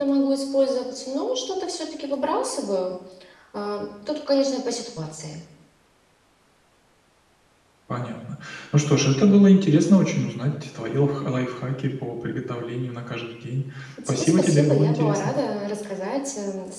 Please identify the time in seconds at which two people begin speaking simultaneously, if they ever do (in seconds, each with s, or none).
14.1 s